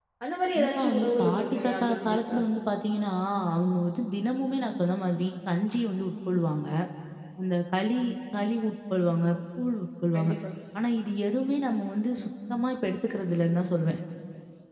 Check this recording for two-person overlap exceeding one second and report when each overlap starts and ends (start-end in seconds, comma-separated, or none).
0.5-2.4